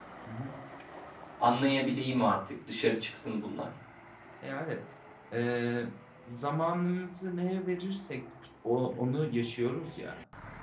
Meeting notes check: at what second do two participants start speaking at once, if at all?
none

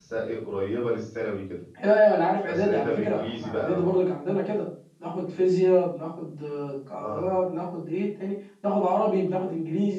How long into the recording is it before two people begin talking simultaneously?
2.5 s

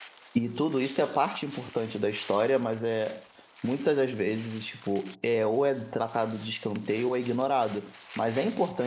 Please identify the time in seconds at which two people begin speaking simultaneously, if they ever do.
none

